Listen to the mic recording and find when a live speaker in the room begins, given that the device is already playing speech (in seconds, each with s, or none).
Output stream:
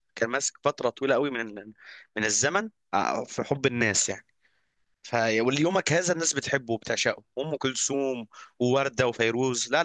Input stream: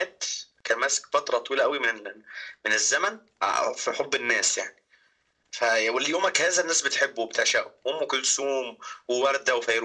none